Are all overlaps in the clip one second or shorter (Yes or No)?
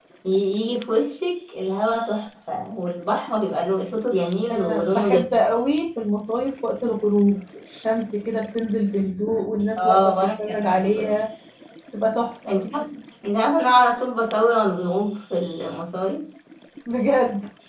No